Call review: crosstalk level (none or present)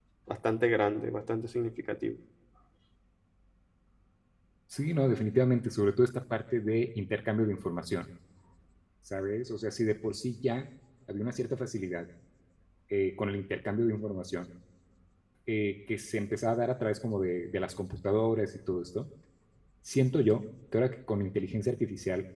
none